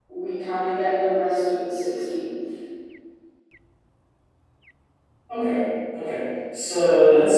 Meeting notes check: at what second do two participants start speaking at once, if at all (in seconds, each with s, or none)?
none